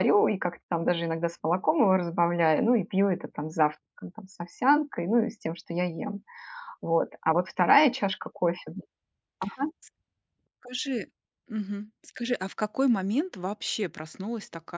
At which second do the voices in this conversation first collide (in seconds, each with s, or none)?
none